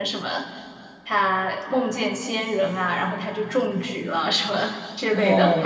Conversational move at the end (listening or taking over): taking over